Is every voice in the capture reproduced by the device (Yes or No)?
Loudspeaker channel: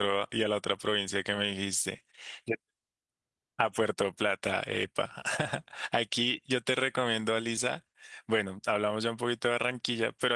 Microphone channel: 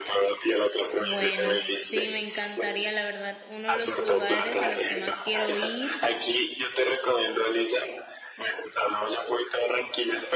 No